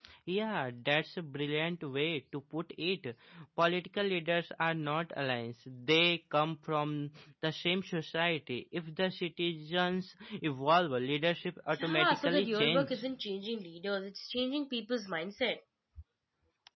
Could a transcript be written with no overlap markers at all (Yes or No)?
No